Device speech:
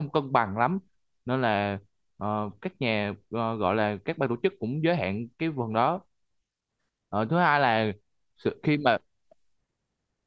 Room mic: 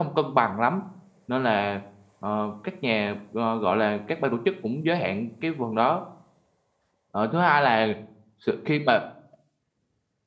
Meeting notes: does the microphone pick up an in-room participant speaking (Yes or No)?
No